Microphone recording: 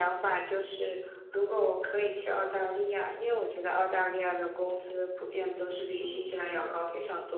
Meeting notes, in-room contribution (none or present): present